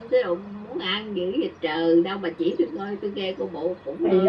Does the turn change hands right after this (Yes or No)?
Yes